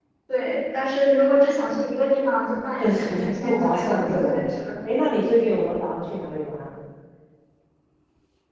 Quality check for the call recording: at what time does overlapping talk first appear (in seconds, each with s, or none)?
2.8 s